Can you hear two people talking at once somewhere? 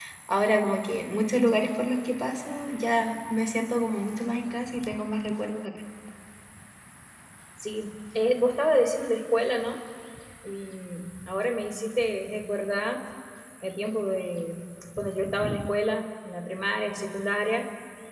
No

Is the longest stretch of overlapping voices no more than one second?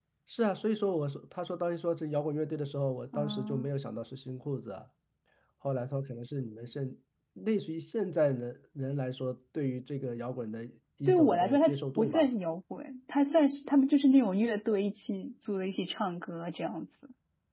No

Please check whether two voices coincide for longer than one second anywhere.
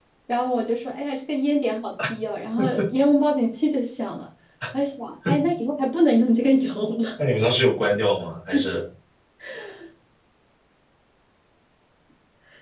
No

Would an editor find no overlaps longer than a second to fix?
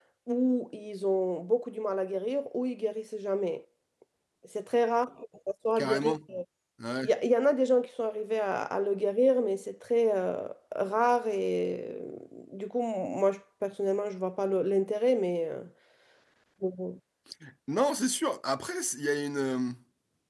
Yes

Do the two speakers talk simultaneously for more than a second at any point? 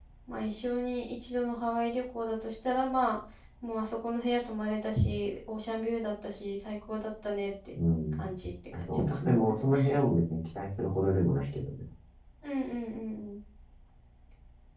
No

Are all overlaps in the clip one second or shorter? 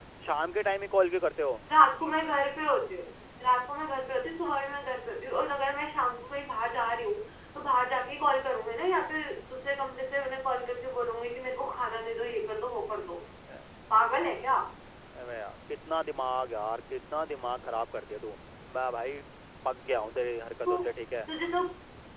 Yes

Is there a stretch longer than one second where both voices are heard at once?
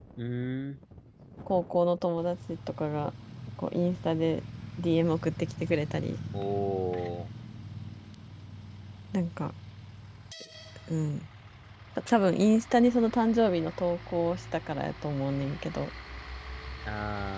No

